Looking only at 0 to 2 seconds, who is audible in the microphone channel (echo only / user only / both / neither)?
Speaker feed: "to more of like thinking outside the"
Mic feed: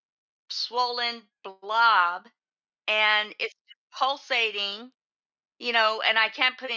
user only